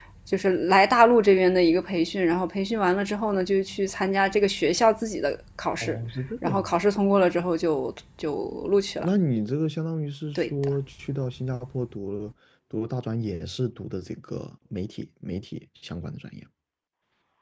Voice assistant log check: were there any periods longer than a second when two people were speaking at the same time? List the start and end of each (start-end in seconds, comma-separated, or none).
none